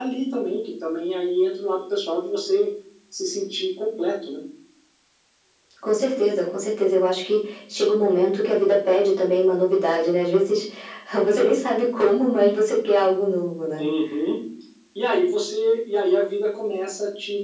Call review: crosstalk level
none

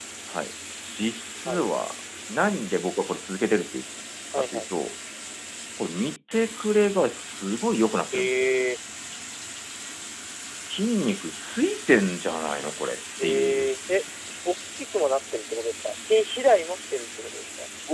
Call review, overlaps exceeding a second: none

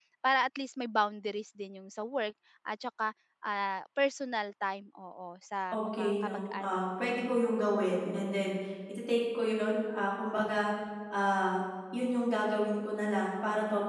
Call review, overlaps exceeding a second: present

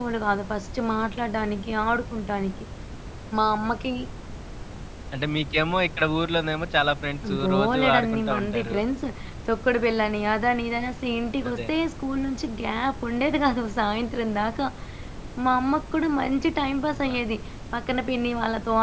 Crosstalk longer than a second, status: present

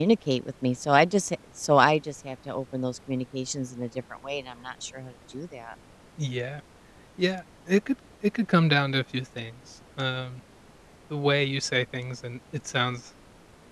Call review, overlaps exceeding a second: none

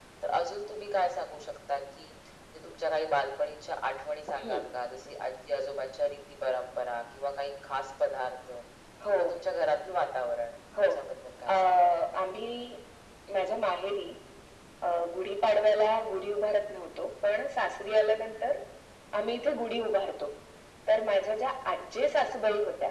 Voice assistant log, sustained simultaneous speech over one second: none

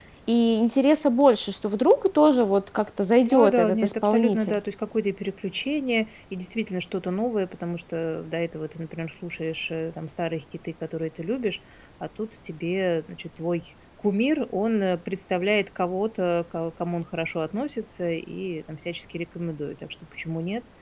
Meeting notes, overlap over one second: present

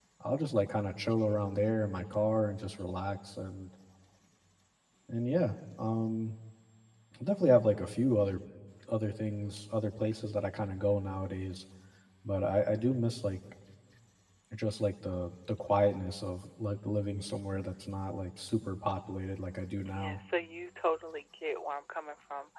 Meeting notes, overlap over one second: none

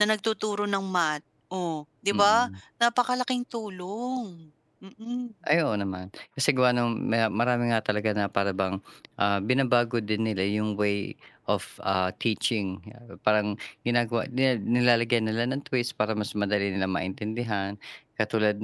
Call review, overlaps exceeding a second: none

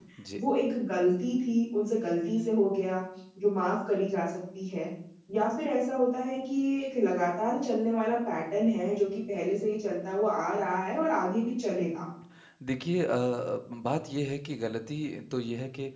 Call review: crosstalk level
none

